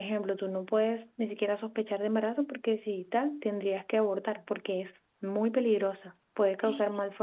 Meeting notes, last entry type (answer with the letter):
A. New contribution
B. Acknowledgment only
B